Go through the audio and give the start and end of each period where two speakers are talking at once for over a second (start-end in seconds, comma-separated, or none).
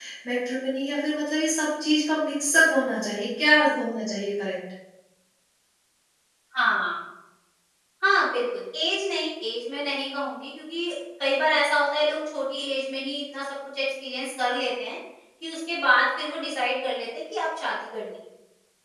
none